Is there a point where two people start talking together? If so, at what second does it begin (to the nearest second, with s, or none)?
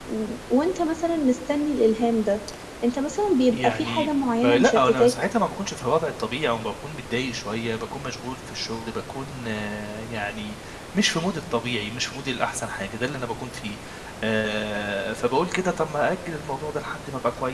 4 s